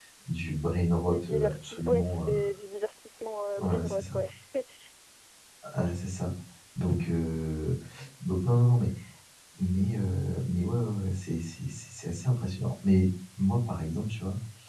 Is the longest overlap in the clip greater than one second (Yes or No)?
Yes